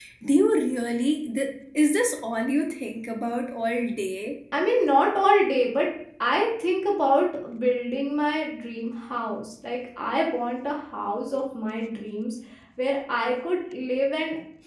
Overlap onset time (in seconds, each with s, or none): none